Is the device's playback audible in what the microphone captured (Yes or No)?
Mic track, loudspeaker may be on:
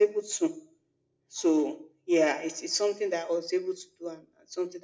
Yes